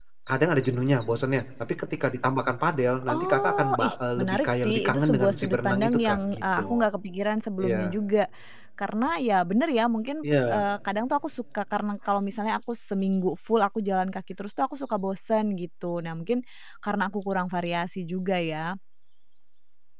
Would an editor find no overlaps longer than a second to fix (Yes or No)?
No